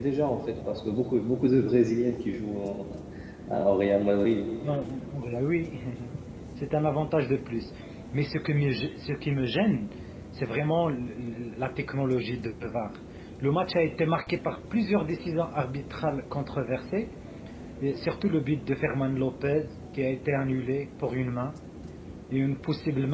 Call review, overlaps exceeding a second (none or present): none